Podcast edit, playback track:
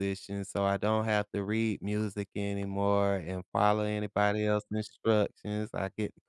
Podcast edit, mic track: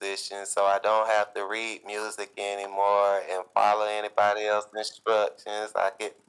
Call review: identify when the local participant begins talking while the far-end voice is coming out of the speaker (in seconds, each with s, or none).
none